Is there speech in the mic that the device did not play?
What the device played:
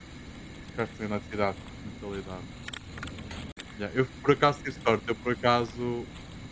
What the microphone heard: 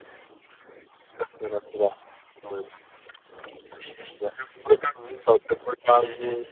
Yes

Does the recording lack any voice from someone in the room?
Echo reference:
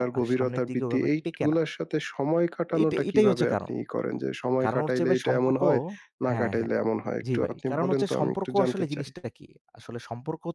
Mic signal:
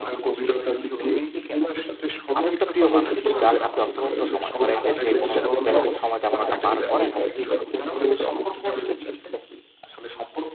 No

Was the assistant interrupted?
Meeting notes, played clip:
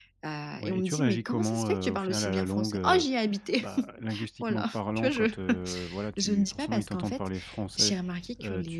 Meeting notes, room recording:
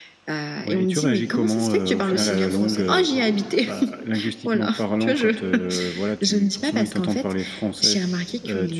Yes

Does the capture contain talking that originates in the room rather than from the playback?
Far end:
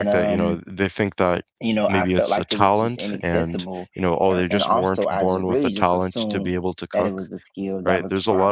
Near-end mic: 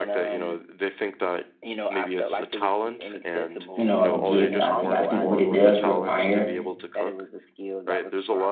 Yes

